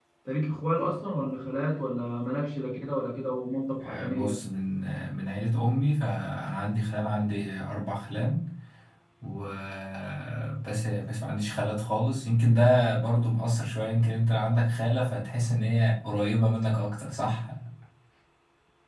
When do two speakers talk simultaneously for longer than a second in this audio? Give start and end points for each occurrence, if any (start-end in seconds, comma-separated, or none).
none